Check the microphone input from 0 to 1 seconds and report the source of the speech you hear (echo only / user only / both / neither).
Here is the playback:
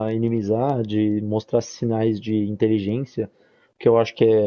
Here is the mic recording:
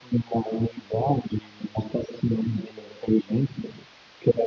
echo only